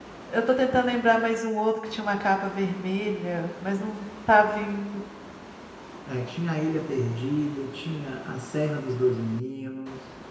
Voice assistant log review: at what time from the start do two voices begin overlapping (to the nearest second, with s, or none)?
none